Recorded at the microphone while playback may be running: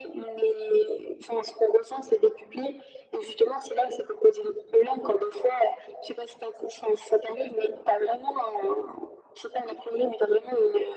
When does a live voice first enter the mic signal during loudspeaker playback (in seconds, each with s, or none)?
none